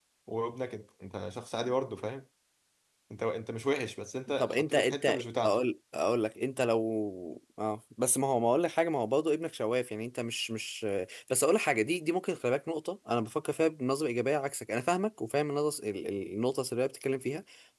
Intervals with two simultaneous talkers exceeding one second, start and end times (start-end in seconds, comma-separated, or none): 4.4-5.6